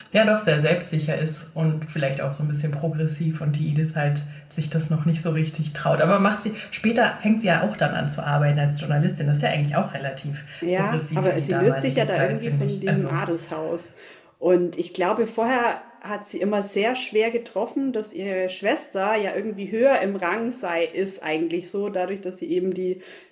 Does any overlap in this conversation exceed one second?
Yes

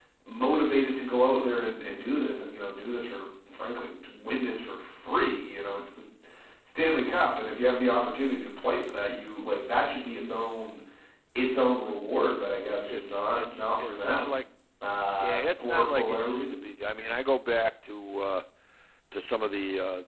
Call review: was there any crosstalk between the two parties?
Yes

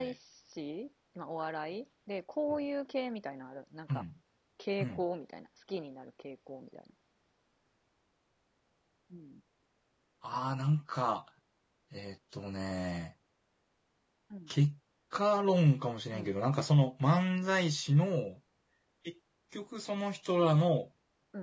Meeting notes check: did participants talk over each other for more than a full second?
No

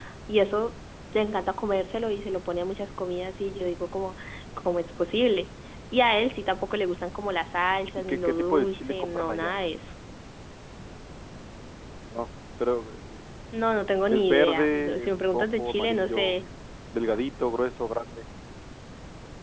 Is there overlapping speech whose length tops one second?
Yes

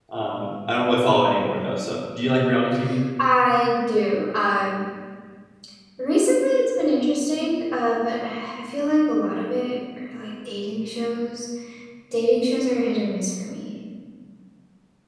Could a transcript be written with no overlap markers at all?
Yes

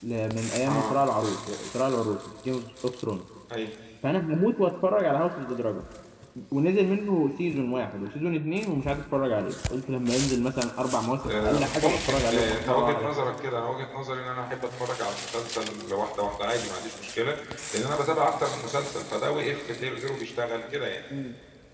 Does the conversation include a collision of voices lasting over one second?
Yes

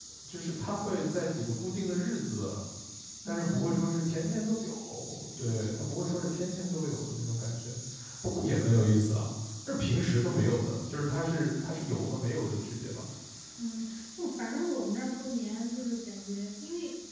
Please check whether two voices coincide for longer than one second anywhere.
No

